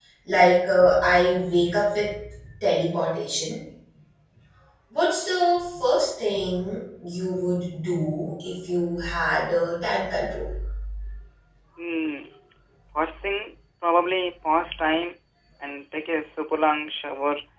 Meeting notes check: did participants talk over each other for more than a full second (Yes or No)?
No